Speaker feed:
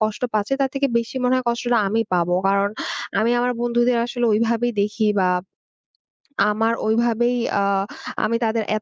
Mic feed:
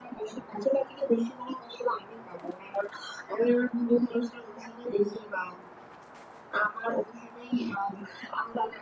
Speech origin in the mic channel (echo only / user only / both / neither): echo only